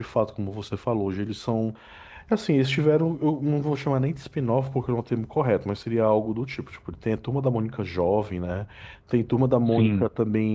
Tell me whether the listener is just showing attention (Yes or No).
Yes